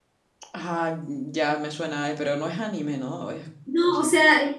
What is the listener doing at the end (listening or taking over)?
taking over